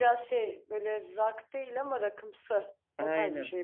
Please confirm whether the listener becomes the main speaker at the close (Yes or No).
Yes